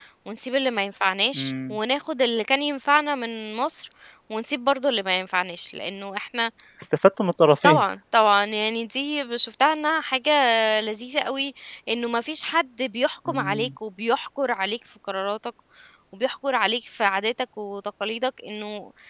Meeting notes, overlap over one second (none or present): none